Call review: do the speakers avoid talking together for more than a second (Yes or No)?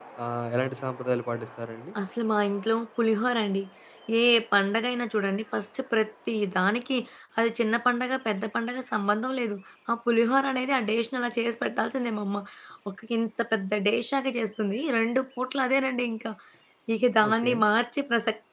Yes